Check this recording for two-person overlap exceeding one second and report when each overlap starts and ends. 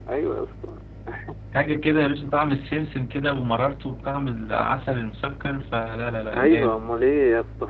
none

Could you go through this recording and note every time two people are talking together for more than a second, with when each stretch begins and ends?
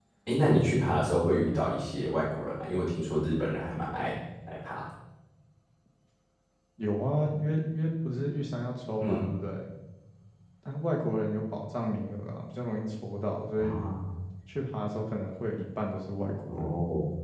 none

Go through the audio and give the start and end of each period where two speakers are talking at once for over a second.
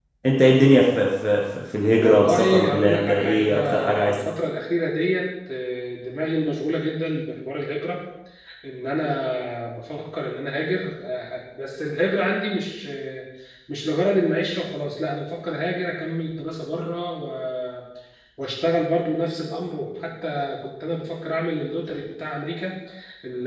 1.9-4.1

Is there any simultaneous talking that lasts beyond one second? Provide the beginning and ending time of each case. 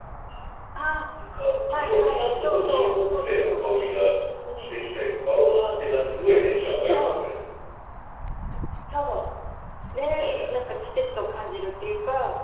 1.7-3.6

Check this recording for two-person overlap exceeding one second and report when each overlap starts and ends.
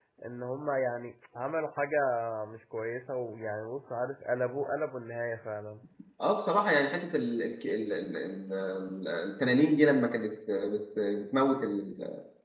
none

